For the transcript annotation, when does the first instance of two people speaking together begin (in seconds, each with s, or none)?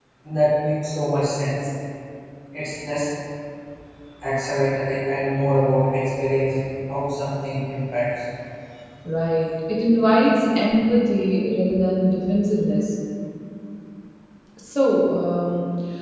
none